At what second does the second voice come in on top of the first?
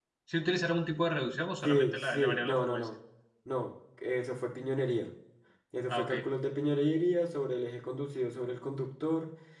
1.6 s

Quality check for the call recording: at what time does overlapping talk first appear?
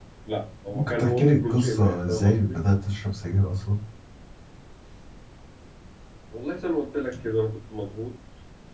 0.7 s

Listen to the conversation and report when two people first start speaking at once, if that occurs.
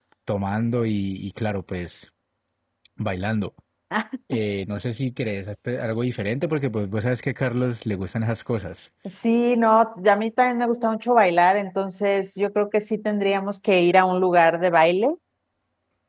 none

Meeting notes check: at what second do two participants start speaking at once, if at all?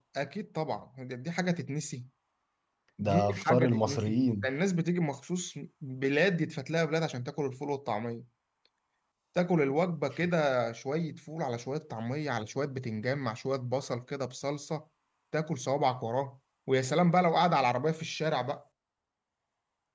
3.0 s

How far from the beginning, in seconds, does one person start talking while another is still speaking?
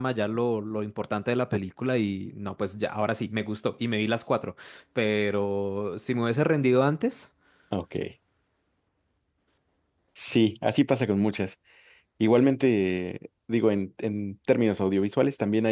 none

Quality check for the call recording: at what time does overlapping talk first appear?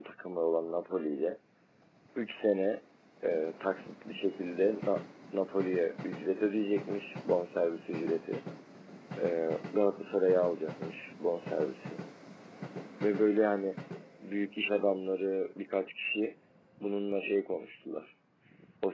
none

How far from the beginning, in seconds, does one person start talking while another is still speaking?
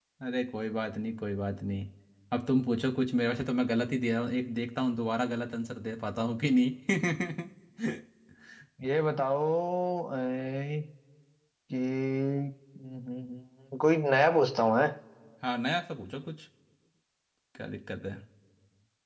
none

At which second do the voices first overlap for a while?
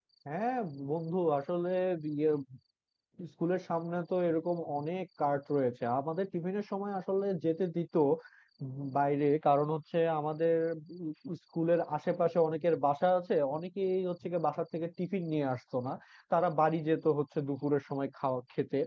none

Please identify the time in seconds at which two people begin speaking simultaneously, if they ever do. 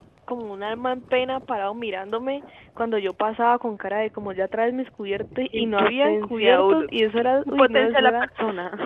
5.5 s

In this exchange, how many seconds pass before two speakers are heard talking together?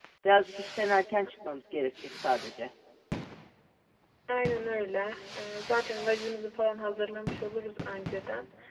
none

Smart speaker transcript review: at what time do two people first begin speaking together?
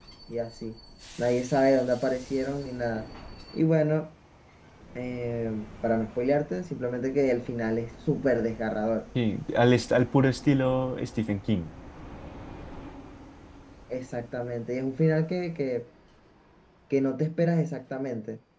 none

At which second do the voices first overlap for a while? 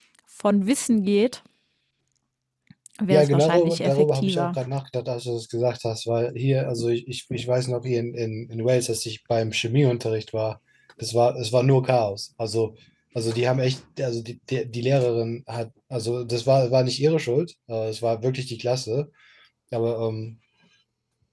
3.1 s

